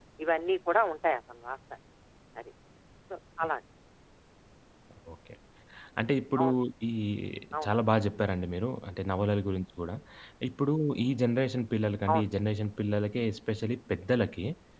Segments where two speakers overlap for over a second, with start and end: none

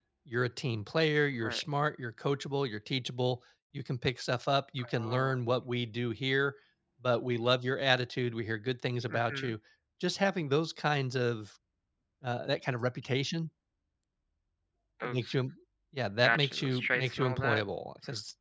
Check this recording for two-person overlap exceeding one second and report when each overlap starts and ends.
16.2-17.6

